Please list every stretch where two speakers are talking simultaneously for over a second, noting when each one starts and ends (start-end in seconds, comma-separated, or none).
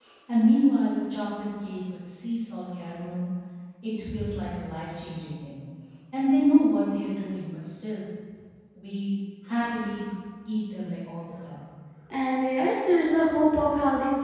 none